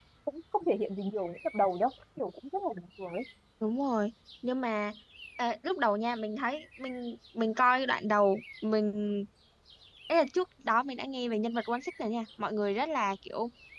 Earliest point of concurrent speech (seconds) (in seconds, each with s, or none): none